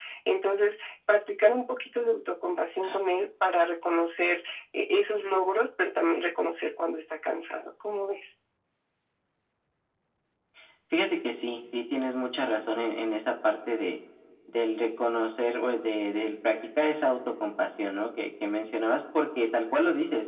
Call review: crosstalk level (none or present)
none